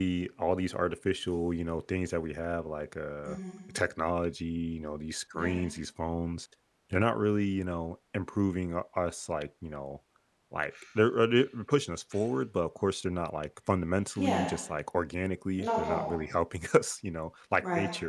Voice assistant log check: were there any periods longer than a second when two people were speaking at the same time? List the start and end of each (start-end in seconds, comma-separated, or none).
none